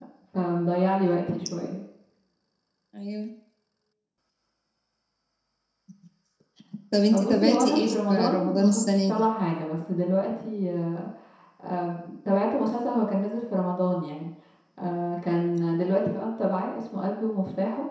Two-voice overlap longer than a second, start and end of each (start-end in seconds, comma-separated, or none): 7.1-9.3